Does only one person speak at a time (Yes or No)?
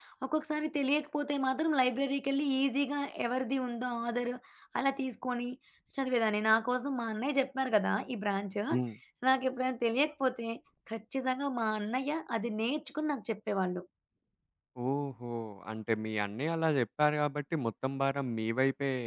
Yes